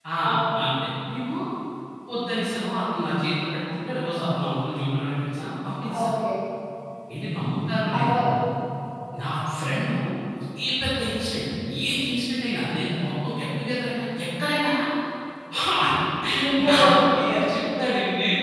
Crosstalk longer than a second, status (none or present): none